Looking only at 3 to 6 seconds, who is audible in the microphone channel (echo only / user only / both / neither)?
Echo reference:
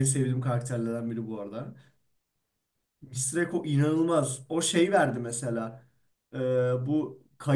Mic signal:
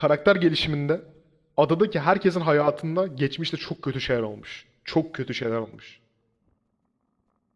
user only